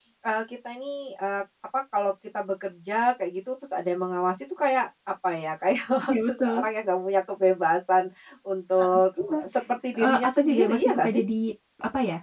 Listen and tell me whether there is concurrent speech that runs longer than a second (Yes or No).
Yes